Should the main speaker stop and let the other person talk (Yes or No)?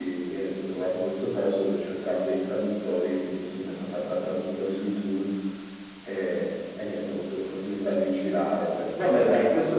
Yes